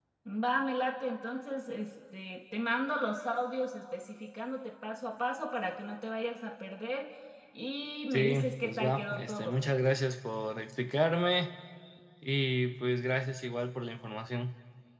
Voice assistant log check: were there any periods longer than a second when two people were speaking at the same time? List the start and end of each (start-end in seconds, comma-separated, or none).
8.1-9.6